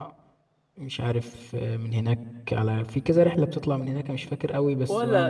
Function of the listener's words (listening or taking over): taking over